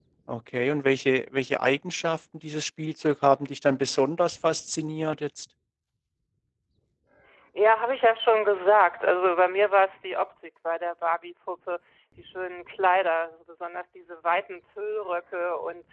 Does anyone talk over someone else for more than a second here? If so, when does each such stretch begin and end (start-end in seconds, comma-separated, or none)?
none